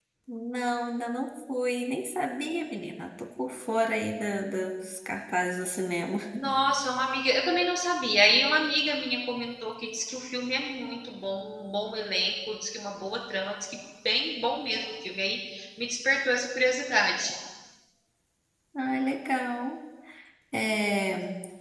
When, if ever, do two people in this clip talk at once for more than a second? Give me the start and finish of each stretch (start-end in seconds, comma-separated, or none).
none